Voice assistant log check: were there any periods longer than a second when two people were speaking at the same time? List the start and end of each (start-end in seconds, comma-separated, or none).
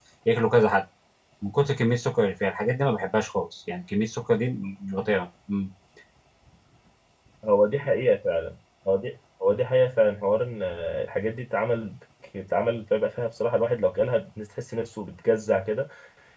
none